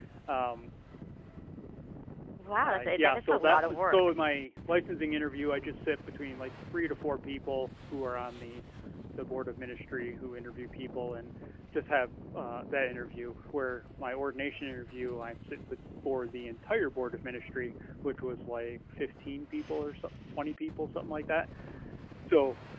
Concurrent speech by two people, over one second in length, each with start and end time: 2.6-4.1

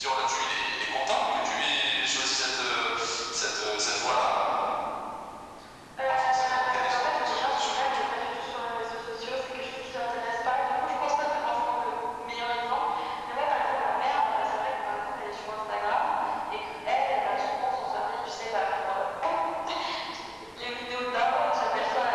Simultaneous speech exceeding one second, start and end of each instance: 6.1-8.0

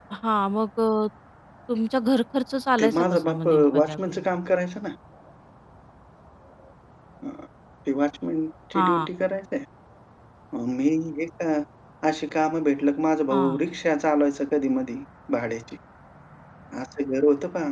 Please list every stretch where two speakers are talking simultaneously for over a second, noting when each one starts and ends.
2.8-4.2

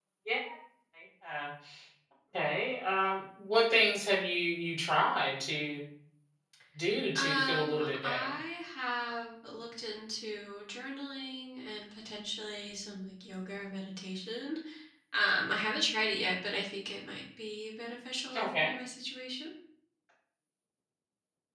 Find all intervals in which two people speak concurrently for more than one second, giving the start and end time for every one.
7.2-8.3

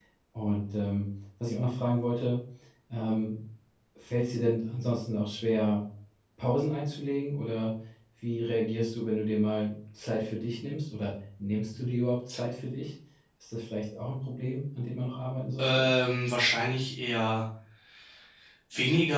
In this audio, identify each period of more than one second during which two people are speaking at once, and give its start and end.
none

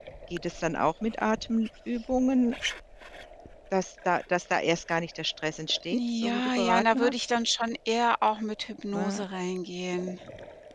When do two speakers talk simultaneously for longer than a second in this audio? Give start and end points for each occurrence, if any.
5.9-7.1

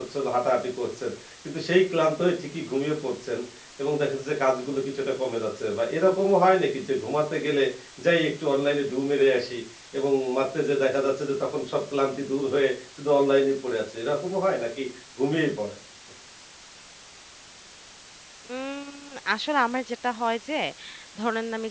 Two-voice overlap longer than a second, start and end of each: none

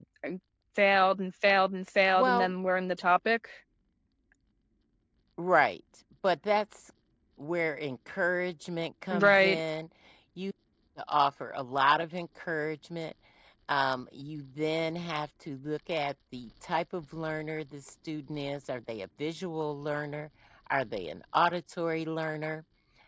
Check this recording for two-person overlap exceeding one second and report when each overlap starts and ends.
none

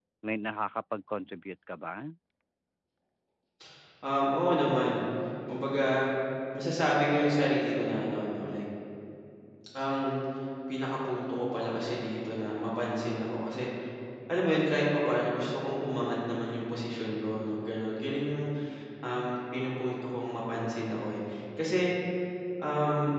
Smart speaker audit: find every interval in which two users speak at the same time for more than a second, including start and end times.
none

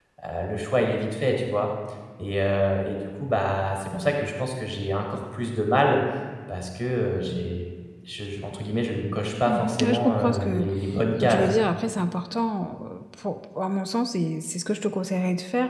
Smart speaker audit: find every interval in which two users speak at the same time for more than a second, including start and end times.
9.5-10.7

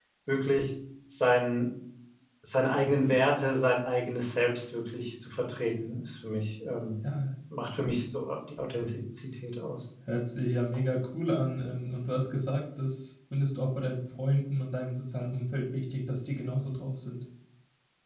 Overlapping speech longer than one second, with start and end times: none

